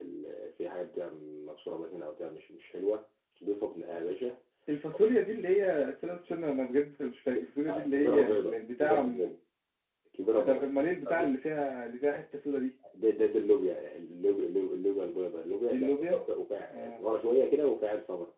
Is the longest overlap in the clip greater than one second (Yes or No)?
Yes